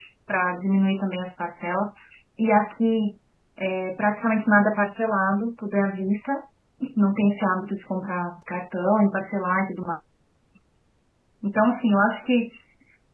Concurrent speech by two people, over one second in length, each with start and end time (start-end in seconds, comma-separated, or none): none